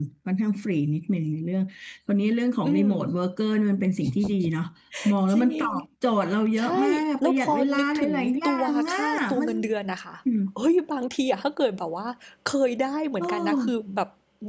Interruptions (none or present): present